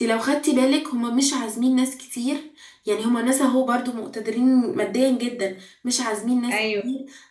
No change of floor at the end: Yes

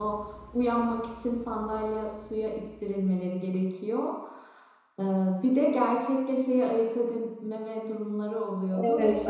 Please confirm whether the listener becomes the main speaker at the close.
Yes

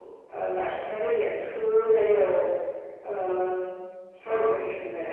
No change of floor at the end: Yes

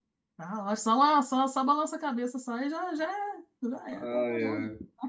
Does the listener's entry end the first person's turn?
Yes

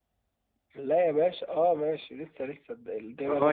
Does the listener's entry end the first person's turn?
Yes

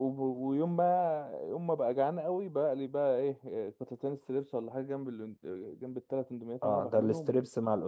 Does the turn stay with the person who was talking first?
No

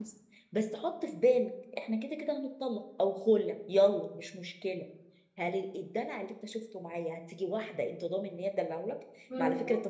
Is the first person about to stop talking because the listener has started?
No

